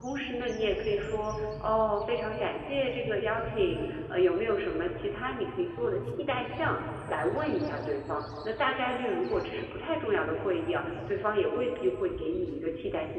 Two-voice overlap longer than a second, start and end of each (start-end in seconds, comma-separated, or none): none